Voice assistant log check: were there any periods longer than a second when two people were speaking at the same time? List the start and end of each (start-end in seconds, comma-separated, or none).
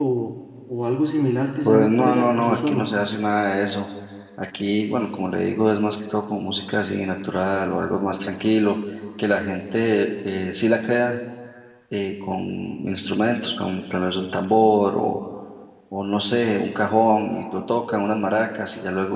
1.6-2.9